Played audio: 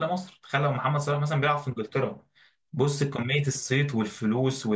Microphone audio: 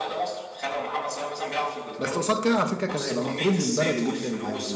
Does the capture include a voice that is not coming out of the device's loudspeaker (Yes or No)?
Yes